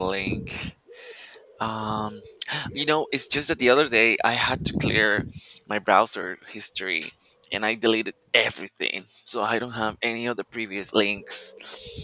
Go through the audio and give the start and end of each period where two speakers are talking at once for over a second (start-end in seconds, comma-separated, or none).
none